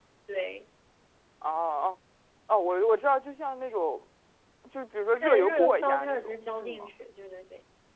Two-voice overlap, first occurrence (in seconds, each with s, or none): 5.2 s